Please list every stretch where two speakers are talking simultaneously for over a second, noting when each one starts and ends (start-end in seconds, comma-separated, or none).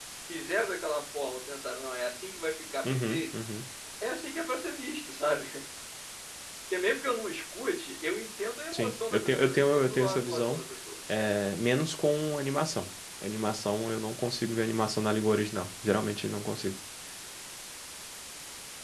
8.7-10.6